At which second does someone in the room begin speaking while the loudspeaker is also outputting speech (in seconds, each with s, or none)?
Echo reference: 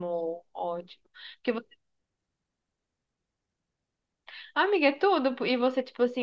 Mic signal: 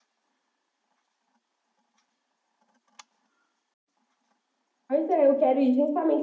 4.9 s